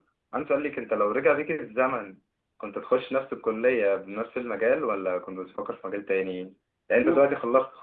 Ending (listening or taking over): listening